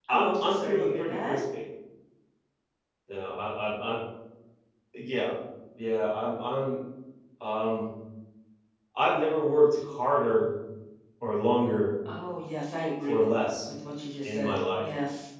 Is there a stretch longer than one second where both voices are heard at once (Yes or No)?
Yes